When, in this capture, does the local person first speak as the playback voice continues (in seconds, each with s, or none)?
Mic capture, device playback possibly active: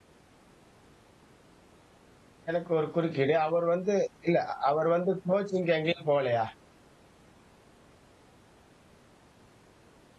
2.5 s